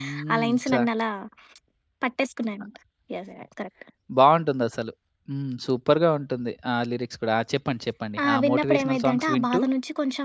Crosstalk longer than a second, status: present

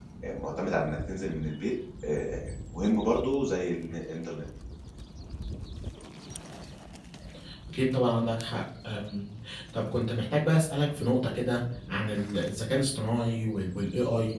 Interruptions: none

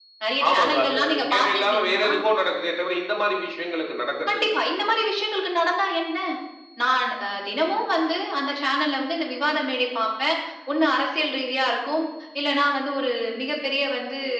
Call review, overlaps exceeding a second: present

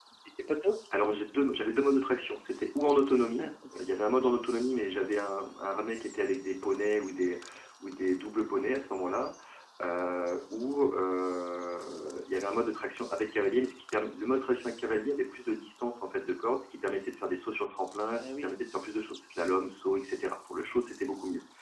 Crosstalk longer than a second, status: none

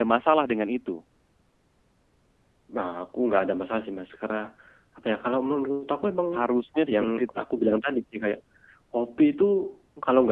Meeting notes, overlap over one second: none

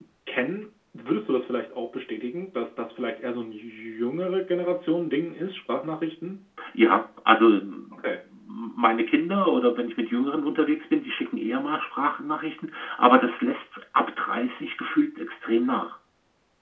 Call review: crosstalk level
none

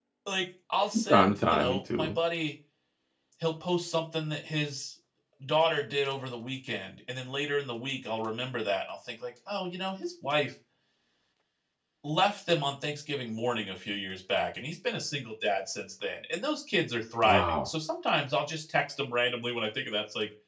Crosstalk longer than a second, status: present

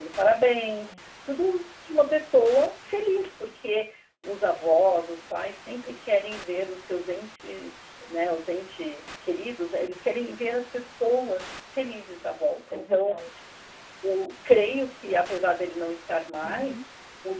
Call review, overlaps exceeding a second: none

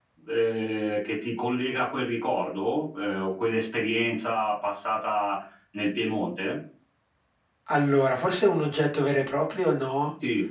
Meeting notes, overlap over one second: none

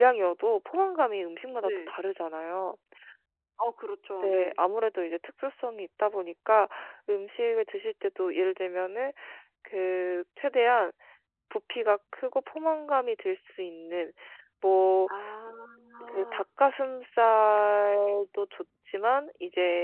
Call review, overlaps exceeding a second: none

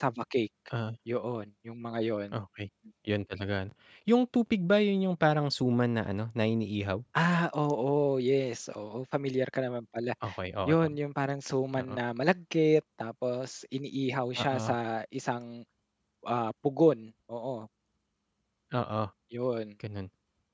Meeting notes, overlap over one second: none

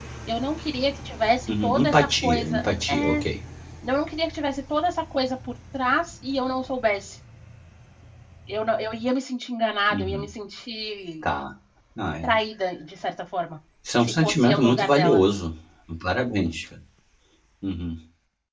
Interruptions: present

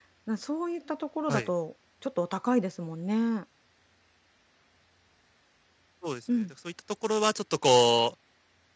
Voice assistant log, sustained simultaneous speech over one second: none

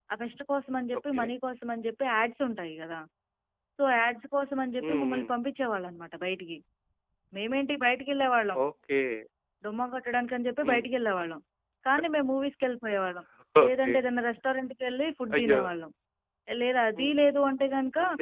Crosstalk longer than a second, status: none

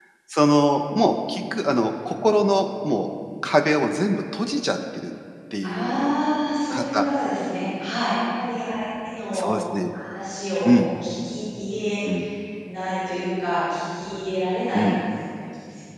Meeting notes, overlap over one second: none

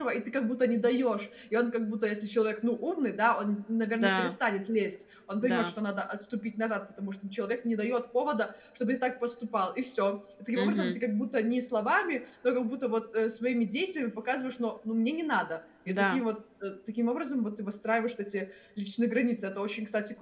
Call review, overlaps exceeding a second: none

